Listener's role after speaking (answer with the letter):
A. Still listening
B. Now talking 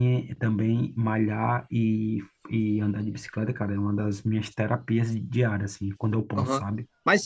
B